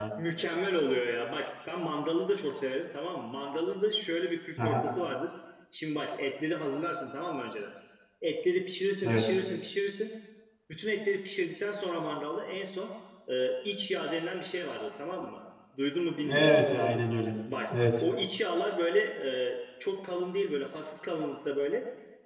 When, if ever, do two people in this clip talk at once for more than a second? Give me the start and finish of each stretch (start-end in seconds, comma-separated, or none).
none